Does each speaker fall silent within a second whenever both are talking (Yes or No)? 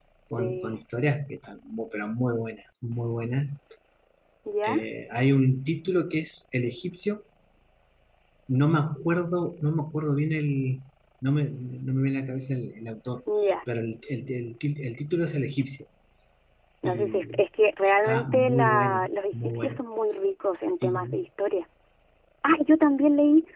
No